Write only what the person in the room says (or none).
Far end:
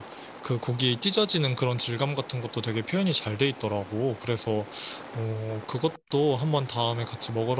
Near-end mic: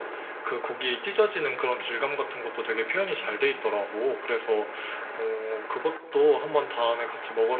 none